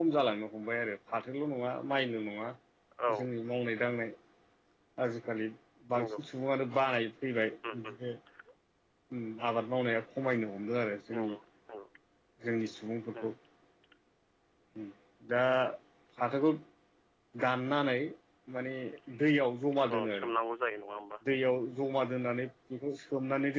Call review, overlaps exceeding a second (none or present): none